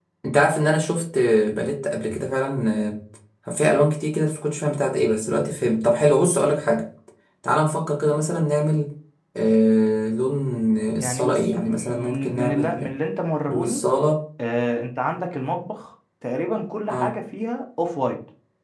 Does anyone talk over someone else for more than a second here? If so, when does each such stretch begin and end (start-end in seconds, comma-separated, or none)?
11.0-12.9